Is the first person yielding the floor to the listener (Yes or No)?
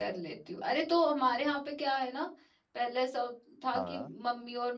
No